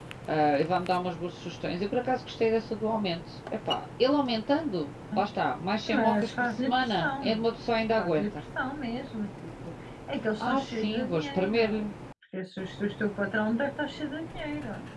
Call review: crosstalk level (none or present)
present